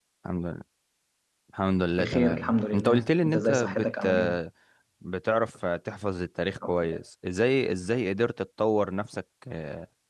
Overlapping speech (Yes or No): Yes